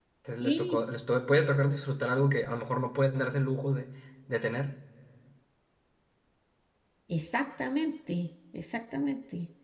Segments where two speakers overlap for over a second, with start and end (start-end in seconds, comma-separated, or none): none